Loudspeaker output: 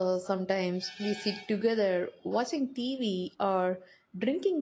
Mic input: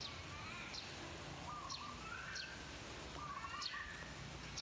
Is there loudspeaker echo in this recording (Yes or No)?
No